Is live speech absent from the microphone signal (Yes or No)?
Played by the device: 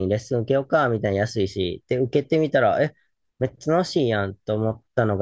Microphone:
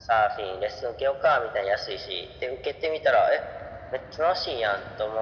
Yes